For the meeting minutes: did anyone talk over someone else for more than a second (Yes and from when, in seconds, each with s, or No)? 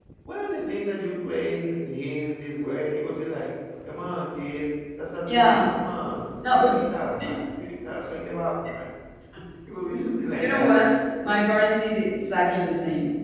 No